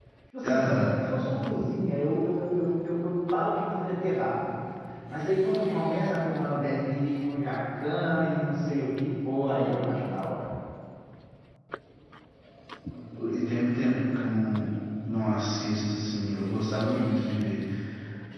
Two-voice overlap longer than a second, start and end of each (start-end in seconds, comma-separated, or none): none